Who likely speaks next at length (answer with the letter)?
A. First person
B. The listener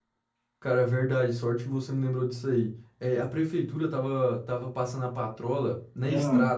A